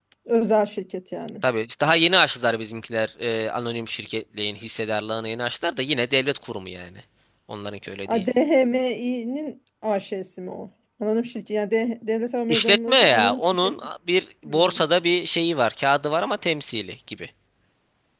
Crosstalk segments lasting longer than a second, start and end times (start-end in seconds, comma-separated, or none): 12.5-13.7